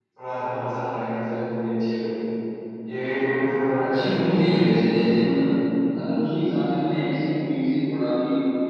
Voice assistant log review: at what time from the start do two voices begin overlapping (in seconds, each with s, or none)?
3.9 s